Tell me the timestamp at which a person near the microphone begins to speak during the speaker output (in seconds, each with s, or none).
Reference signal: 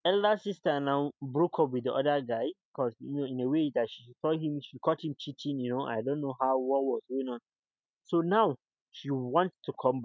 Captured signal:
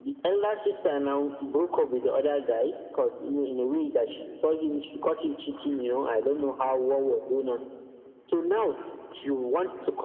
none